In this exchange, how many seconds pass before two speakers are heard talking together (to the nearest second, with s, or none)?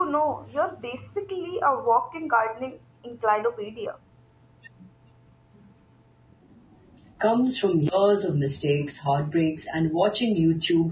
none